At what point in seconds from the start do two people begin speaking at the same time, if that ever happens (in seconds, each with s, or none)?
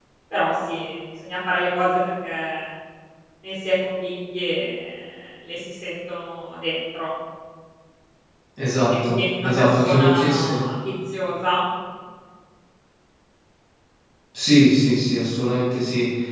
8.9 s